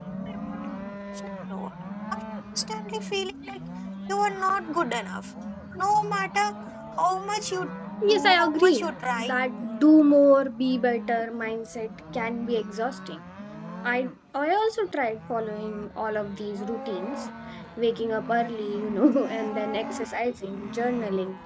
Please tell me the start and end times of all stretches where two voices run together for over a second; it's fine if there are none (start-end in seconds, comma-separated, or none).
8.1-9.3